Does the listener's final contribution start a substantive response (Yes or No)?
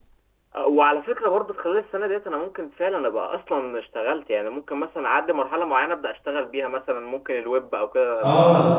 Yes